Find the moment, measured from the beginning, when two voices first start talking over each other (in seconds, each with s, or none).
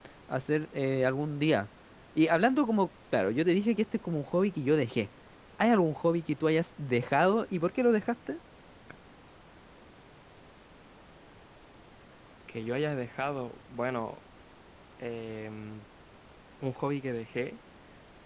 none